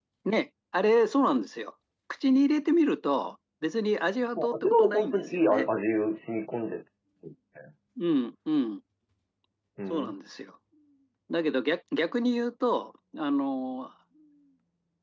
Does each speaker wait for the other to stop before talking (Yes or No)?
No